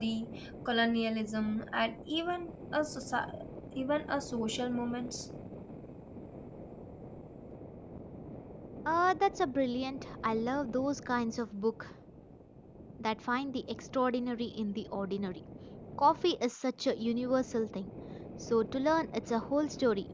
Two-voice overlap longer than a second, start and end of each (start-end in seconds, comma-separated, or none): none